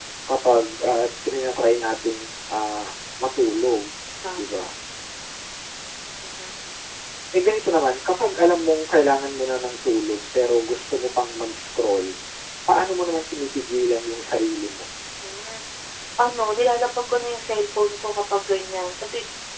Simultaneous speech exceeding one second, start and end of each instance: none

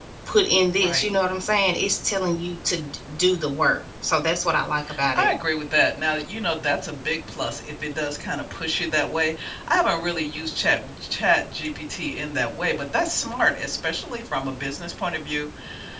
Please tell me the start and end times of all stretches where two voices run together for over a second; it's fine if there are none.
none

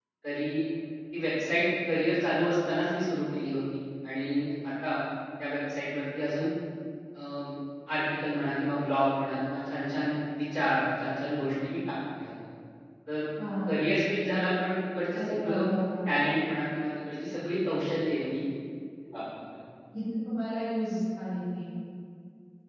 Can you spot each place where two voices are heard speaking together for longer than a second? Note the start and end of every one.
none

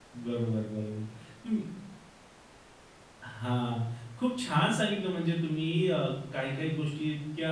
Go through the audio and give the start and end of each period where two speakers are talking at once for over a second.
none

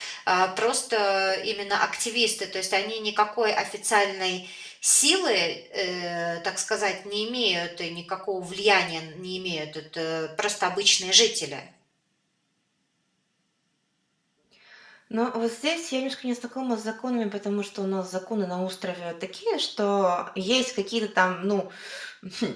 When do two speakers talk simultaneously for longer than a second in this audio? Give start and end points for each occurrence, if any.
none

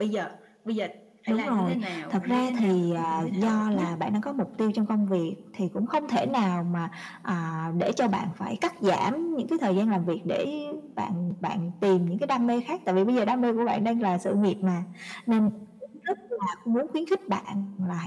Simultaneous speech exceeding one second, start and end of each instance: 1.3-3.9

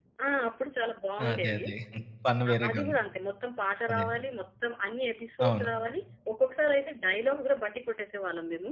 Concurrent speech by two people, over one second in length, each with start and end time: none

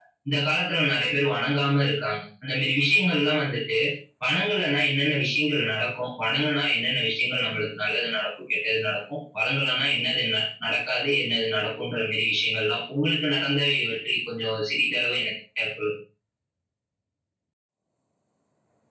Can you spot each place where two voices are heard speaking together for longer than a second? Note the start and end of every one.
none

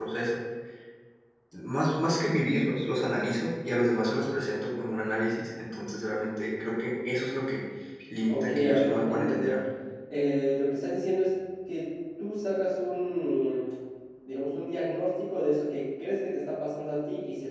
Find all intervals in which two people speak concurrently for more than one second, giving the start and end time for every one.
8.3-9.6

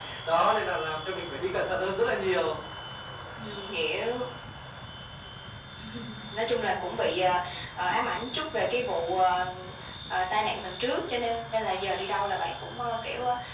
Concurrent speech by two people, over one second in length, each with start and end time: none

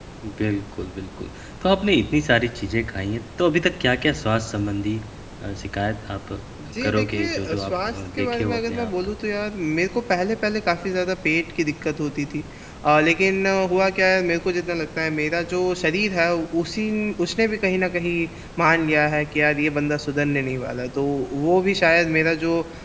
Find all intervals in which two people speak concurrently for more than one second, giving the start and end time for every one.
6.8-9.1

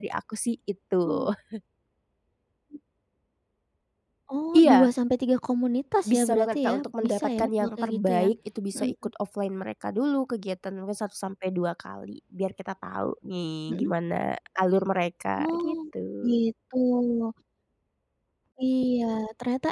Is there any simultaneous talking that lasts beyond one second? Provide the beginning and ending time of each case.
6.0-8.3

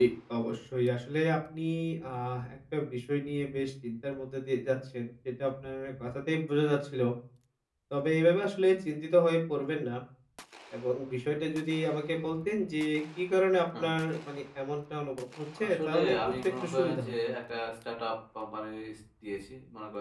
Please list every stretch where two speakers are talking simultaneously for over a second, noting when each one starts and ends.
15.6-17.3

